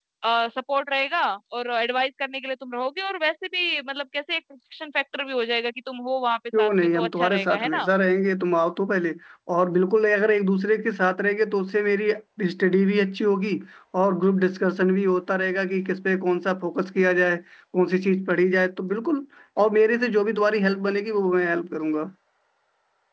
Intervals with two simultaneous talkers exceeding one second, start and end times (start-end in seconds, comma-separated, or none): 6.6-7.9